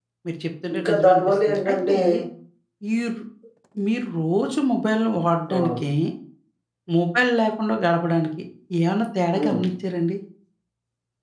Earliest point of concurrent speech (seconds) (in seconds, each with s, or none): 0.7 s